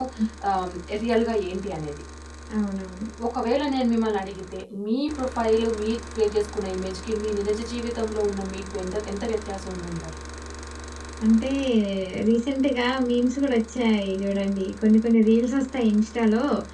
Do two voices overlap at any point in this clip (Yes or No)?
No